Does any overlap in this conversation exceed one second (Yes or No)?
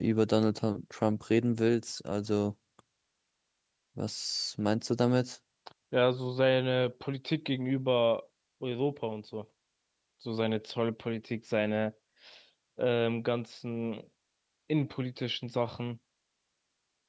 No